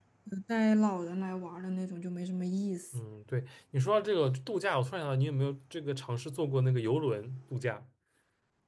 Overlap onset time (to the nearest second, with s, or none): none